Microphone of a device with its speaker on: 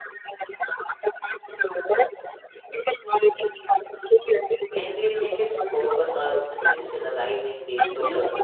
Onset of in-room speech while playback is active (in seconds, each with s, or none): 4.7 s